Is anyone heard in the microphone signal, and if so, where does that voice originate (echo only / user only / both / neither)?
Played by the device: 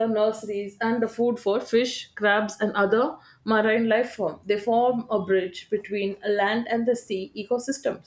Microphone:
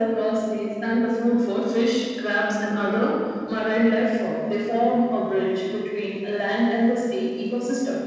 echo only